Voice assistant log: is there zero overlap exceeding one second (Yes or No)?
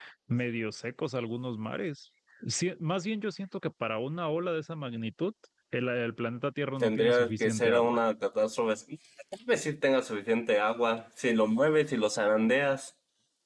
No